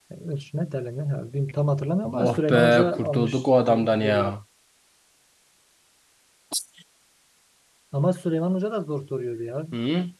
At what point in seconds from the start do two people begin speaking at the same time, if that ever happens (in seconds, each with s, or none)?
2.1 s